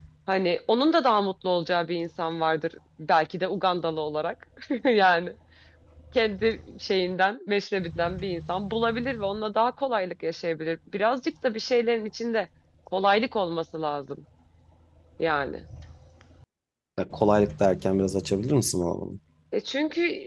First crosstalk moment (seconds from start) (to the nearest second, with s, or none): none